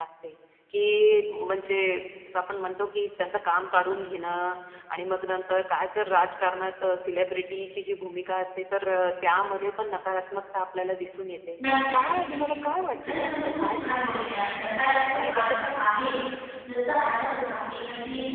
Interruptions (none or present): present